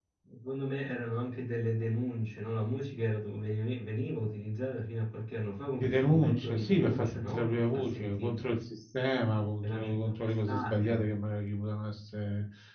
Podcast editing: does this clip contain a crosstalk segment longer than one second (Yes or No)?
Yes